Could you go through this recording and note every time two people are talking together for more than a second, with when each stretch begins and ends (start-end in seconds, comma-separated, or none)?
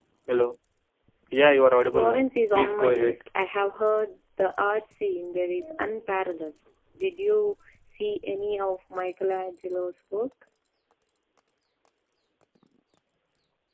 1.9-3.2